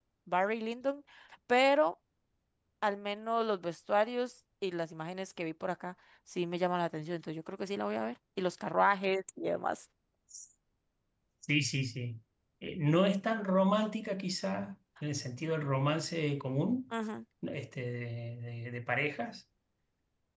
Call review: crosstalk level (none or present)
none